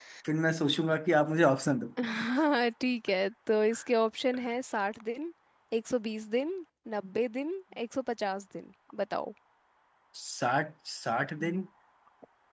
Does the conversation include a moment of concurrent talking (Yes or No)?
No